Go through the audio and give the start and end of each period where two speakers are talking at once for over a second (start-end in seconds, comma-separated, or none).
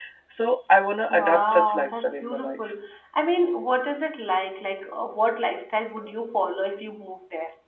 1.1-2.6